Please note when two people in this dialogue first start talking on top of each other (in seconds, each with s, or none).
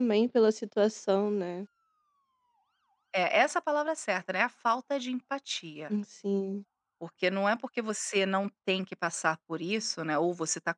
none